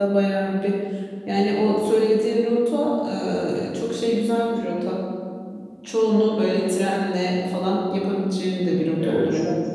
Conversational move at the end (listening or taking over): taking over